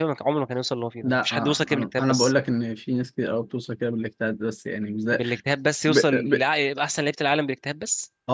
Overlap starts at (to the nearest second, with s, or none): 1 s